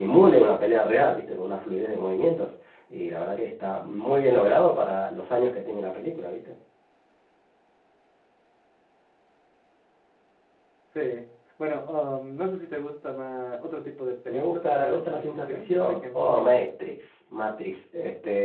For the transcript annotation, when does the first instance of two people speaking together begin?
14.2 s

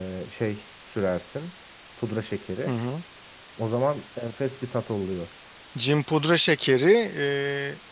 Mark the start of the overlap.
none

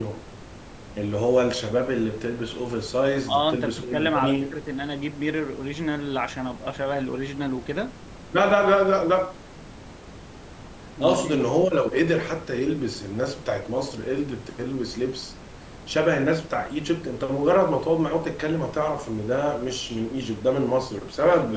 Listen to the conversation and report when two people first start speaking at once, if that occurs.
3.3 s

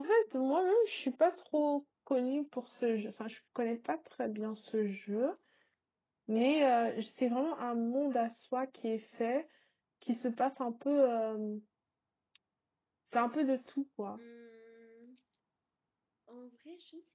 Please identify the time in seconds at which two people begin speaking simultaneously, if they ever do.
none

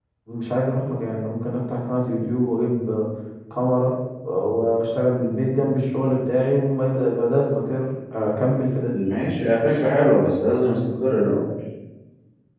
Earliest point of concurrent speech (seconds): none

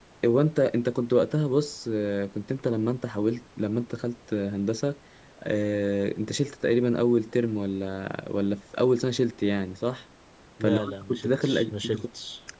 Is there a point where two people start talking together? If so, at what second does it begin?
10.6 s

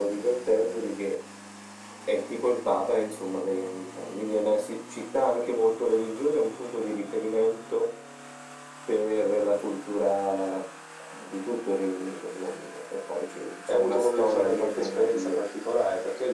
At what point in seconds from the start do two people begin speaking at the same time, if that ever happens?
13.7 s

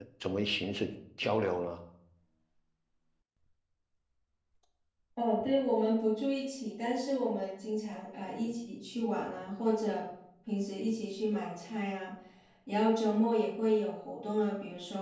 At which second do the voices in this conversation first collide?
none

